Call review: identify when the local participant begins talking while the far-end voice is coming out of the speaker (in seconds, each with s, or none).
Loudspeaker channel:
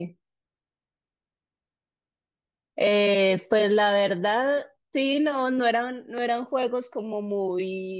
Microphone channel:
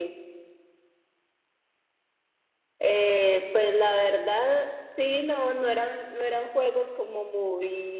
none